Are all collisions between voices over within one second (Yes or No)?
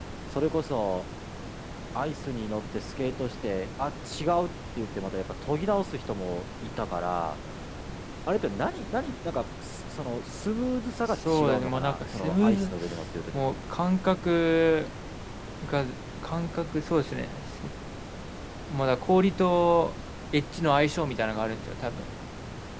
No